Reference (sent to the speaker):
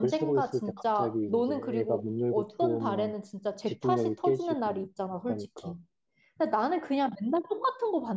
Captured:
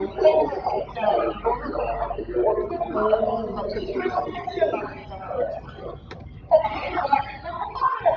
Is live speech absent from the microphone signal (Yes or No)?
No